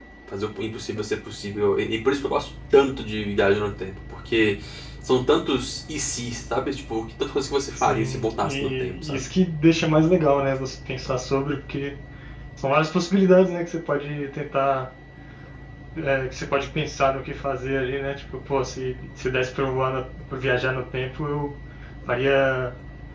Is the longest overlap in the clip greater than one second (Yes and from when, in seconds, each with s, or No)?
Yes, from 7.8 s